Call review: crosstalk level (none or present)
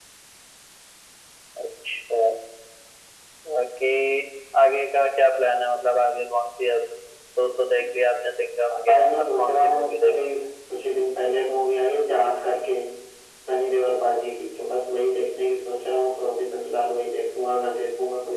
present